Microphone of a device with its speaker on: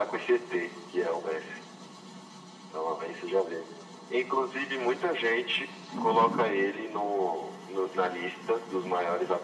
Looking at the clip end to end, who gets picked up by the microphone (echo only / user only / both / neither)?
echo only